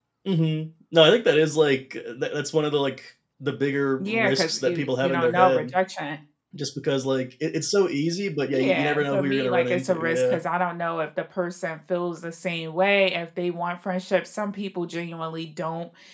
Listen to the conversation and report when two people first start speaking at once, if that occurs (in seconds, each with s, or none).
4.0 s